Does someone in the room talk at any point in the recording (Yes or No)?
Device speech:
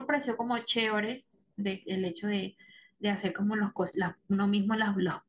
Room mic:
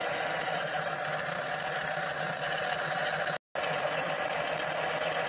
No